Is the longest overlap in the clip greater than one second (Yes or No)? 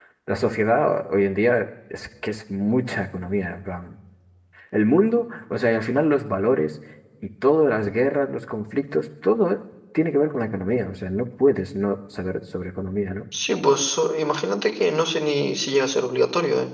No